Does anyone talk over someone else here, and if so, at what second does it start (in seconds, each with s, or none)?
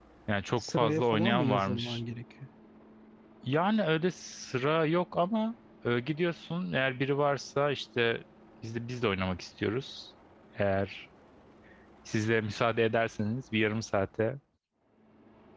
0.6 s